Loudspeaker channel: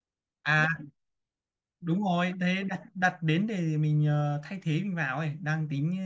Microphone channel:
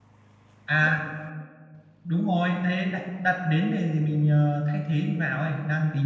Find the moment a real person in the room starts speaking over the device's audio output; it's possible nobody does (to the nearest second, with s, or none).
none